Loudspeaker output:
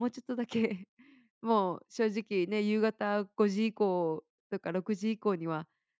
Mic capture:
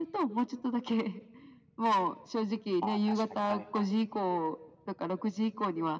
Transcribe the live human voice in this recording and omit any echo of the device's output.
あ、確かに、はいはい。

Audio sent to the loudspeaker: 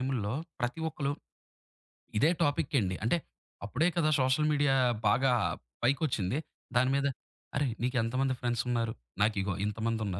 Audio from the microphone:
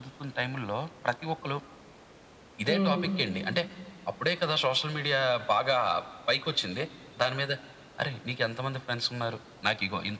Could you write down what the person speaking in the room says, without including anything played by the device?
హ్మ్.

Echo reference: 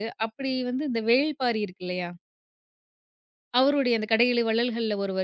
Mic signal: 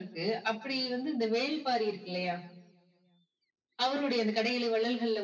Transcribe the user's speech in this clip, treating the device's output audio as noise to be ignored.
none

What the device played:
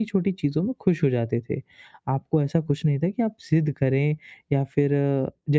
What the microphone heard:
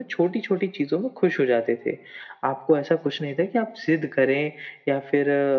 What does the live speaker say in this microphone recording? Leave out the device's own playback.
none

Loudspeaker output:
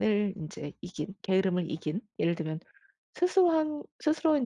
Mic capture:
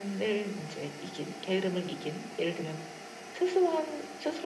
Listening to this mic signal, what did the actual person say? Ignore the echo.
none

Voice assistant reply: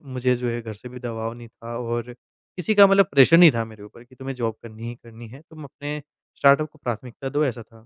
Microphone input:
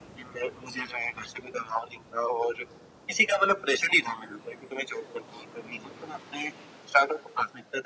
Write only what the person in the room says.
none

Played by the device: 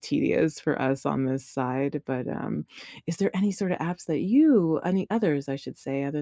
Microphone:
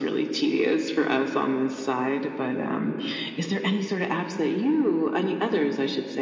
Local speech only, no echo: none

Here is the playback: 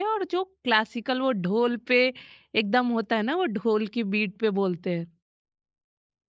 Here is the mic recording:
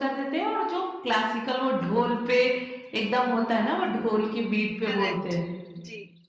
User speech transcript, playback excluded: करेक्ट। जी।

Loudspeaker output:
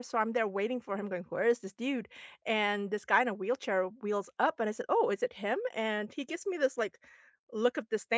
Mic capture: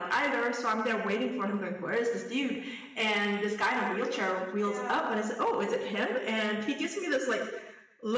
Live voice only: yeah.

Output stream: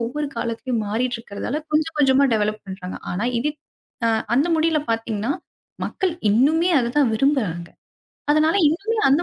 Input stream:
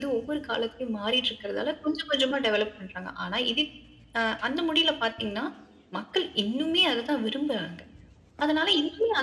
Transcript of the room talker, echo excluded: none

